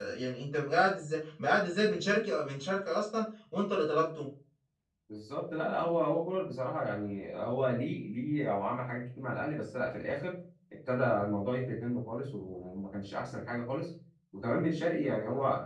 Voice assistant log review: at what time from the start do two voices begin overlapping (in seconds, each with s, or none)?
none